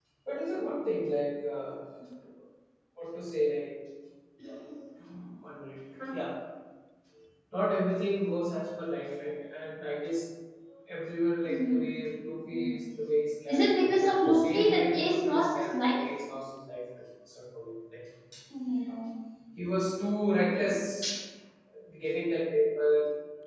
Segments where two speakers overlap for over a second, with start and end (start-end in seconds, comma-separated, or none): 13.5-15.9